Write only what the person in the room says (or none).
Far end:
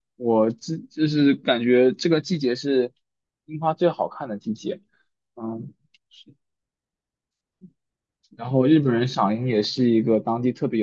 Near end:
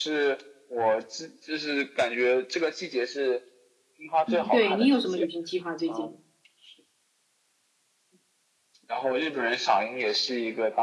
嗯，对，你有什么旅行计划最近？